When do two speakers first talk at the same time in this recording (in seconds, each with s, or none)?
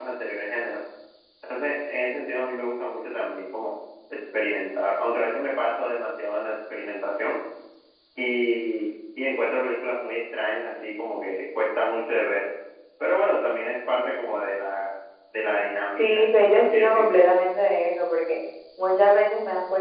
15.8 s